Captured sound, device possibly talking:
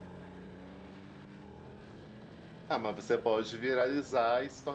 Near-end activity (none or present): present